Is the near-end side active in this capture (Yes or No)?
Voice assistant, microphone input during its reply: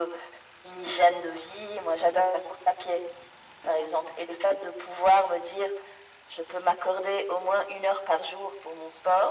No